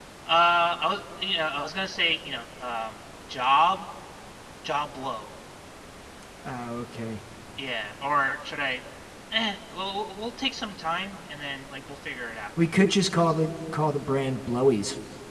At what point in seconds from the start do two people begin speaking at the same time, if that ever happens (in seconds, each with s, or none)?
none